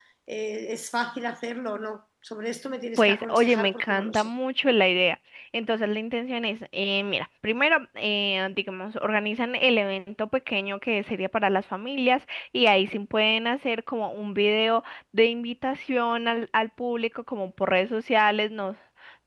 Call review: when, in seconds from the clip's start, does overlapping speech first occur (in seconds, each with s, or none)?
3.0 s